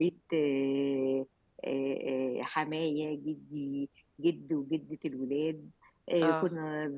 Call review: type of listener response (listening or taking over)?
listening